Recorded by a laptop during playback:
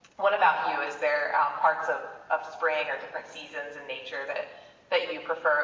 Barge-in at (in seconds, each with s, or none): none